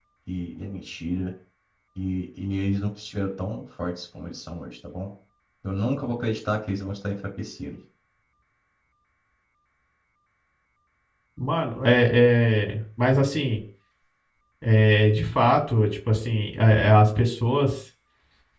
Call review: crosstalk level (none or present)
none